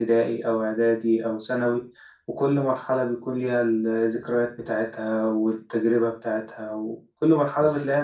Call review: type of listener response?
taking over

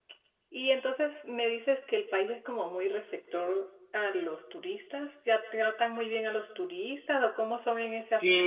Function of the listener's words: taking over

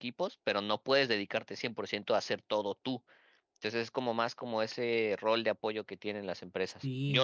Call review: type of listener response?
taking over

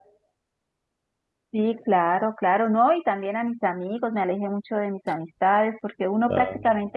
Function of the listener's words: listening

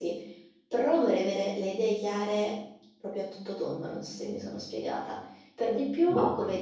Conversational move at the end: listening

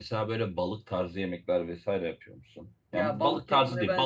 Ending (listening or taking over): taking over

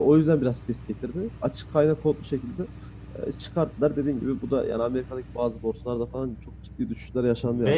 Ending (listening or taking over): taking over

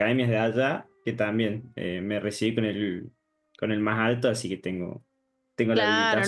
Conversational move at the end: taking over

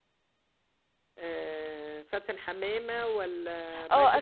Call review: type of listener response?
taking over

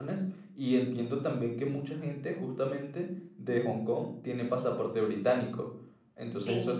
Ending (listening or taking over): listening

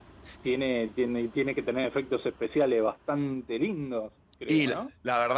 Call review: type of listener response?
taking over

